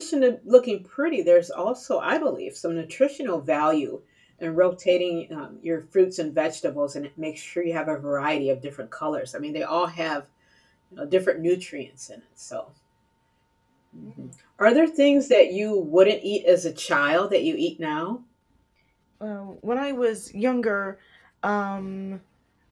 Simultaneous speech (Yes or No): No